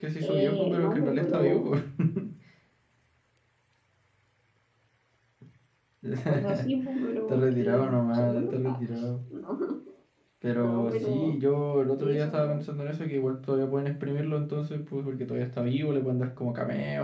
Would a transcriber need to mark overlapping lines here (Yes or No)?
Yes